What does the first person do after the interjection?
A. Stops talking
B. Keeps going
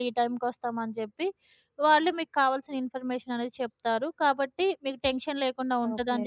B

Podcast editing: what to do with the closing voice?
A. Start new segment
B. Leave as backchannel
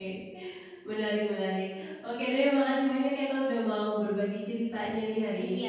A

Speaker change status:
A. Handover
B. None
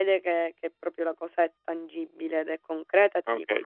A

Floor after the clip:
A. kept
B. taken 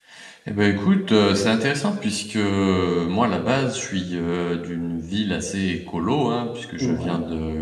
A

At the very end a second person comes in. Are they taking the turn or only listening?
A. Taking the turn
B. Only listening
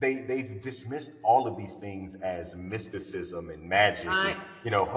B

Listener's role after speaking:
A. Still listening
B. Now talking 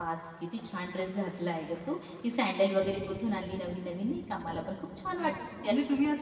B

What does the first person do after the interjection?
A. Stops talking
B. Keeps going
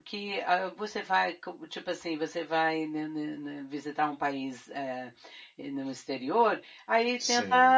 B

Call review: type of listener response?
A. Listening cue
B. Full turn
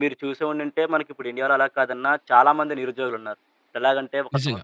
A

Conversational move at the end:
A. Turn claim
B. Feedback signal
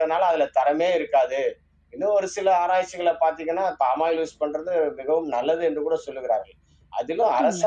B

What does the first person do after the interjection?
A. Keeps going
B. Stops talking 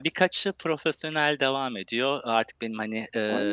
A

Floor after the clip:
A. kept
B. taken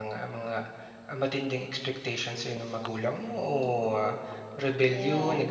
A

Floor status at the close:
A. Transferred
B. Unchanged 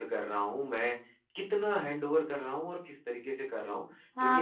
A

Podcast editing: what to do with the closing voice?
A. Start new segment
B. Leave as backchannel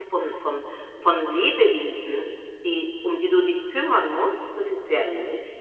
A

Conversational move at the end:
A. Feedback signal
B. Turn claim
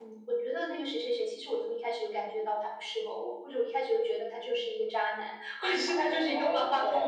B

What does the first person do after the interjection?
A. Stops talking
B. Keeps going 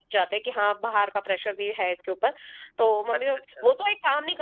B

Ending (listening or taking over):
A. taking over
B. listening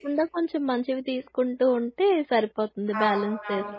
A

